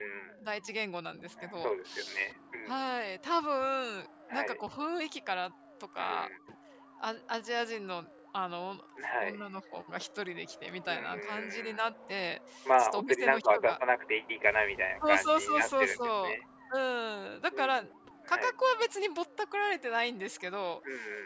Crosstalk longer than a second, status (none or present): present